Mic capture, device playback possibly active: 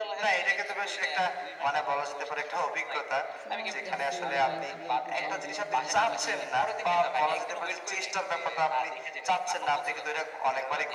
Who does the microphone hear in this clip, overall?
both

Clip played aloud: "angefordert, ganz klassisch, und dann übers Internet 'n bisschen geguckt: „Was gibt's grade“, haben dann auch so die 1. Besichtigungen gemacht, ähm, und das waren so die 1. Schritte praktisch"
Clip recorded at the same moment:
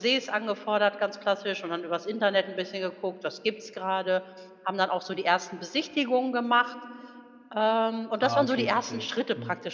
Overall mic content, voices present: both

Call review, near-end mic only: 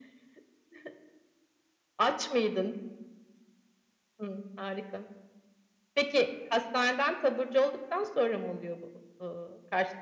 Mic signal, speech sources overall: echo only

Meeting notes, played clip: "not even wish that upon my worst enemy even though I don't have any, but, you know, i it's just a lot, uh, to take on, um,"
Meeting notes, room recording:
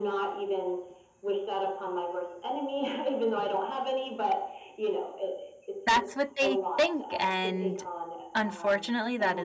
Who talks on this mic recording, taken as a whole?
both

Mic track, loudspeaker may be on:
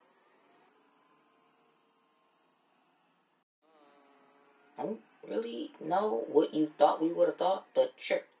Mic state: user only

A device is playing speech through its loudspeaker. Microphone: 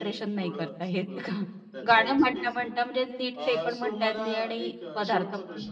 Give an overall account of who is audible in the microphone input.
both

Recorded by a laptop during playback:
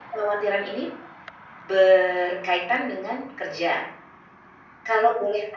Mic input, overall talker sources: echo only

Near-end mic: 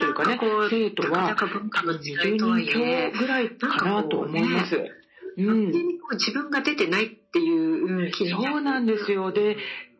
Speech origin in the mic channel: echo only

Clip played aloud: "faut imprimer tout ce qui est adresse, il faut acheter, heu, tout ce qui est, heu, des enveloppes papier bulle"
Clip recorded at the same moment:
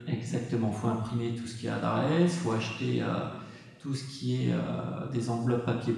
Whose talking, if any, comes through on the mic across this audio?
echo only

